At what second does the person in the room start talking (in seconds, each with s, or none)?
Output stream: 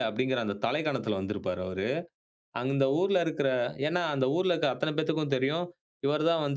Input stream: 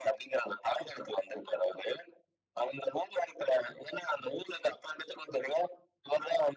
none